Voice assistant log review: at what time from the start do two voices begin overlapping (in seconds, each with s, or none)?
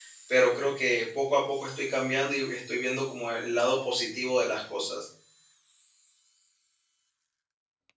none